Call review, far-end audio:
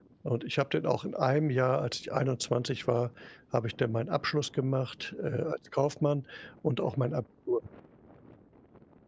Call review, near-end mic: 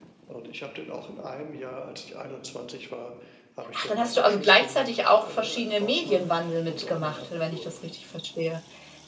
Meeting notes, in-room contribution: present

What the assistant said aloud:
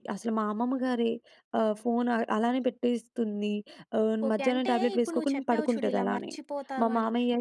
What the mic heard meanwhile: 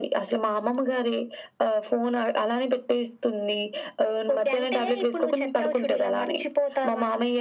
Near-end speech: none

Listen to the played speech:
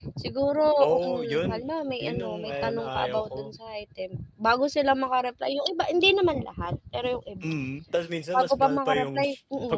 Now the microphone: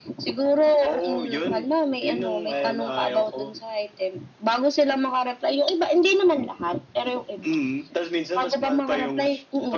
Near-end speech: none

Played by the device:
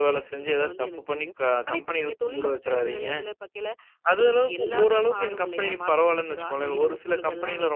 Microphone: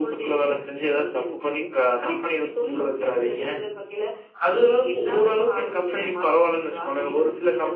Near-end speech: none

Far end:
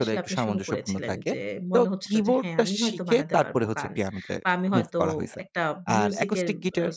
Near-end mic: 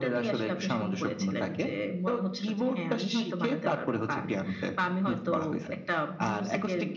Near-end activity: none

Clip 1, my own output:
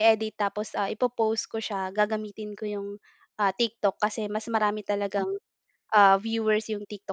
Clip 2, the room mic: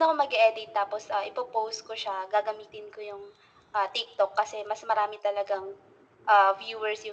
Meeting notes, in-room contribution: none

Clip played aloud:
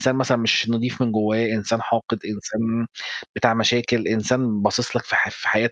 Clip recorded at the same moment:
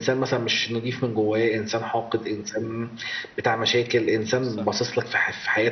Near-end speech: present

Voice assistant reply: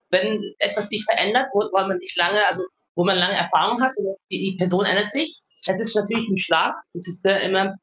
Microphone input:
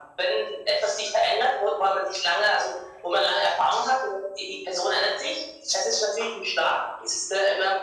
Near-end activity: none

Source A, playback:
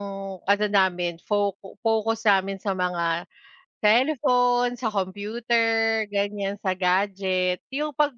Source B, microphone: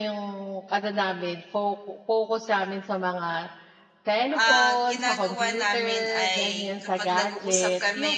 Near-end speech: present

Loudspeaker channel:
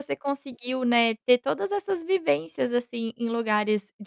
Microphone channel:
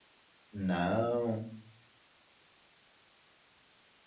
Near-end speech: present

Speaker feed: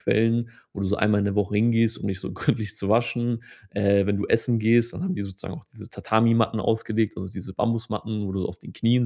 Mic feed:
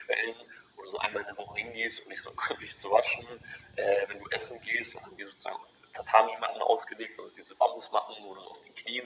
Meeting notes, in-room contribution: none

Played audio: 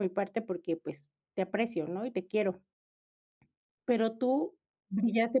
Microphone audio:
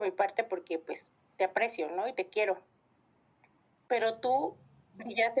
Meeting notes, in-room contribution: none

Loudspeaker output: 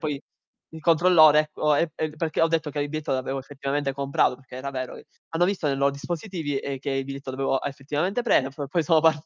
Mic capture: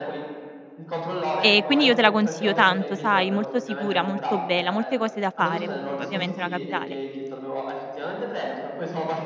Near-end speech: present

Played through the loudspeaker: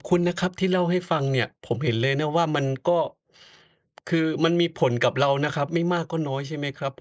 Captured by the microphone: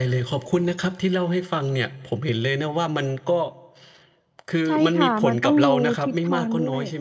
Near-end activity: present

